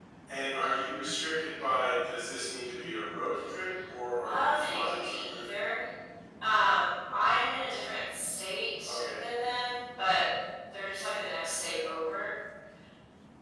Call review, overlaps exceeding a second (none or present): present